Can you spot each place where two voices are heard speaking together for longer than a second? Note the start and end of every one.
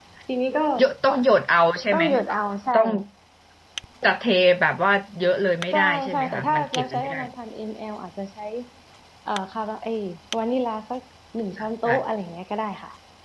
5.7-7.2

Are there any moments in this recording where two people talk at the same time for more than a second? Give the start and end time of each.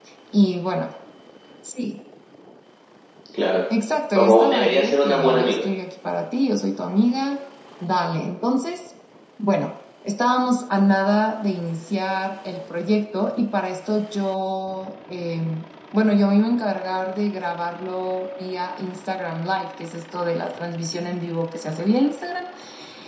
4.2-5.7

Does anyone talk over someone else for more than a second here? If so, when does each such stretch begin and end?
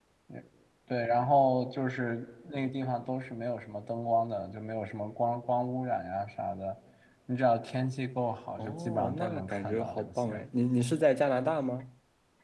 8.6-10.4

